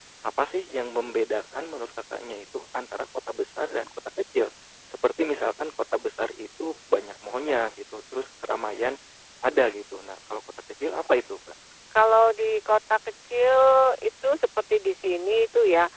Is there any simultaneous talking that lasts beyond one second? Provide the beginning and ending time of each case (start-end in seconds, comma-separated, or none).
none